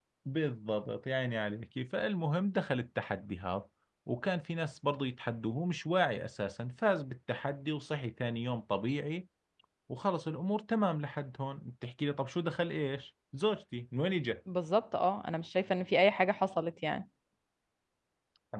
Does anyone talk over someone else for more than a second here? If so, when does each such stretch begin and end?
none

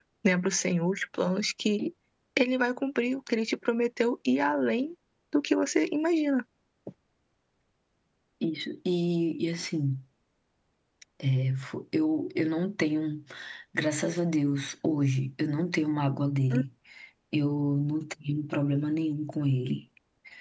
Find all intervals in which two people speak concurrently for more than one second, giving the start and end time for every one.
none

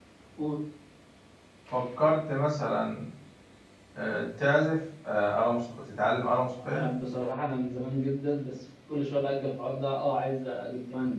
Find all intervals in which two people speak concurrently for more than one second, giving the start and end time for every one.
none

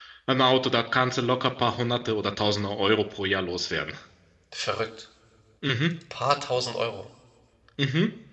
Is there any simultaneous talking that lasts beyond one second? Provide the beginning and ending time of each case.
none

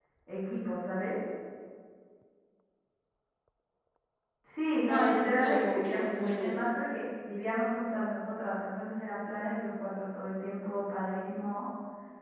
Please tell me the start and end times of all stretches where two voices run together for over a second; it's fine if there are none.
4.9-6.6

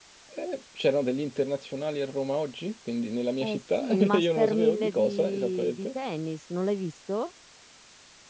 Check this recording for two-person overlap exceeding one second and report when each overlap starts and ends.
3.4-5.9

